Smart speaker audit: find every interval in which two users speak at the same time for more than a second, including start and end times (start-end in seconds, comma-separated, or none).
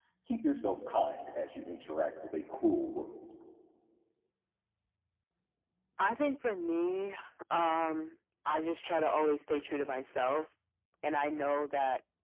none